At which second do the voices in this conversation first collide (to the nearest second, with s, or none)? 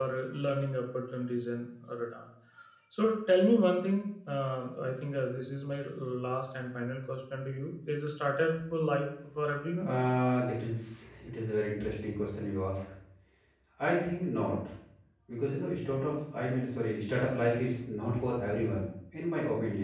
none